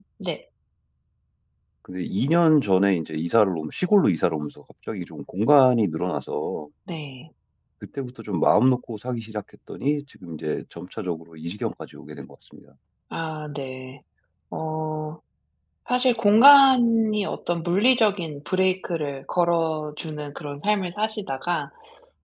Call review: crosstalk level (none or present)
none